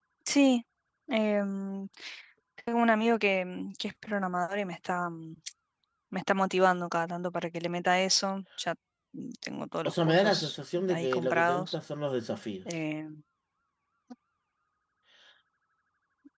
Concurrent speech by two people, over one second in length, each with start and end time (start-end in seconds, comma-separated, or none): 9.8-11.8